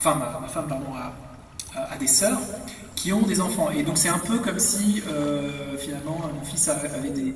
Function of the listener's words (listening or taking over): taking over